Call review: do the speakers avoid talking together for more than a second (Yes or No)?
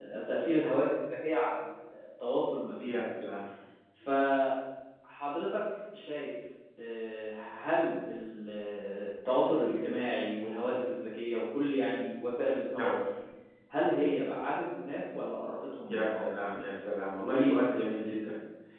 Yes